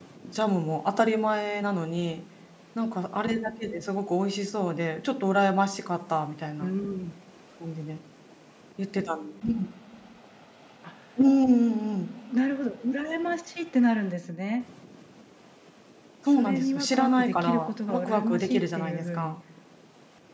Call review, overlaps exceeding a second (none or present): present